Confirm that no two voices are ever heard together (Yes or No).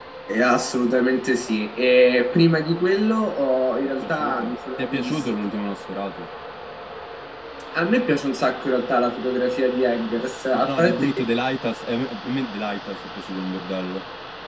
No